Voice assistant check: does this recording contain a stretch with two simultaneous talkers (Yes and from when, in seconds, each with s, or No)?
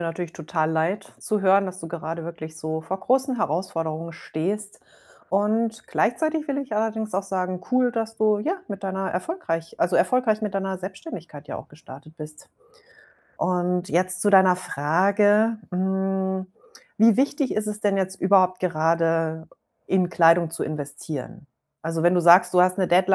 No